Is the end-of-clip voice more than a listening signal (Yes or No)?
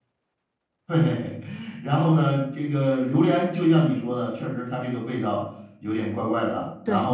Yes